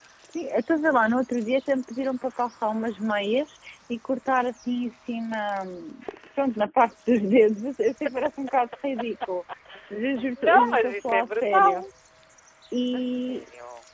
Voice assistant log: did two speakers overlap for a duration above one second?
Yes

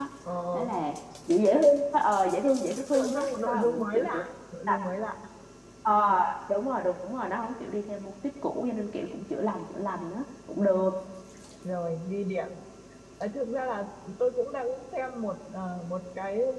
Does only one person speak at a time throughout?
No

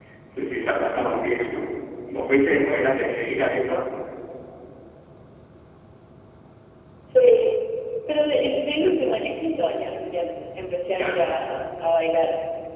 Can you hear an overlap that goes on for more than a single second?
No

